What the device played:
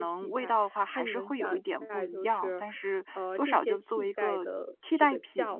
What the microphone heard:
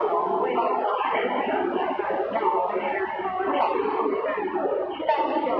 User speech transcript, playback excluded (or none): none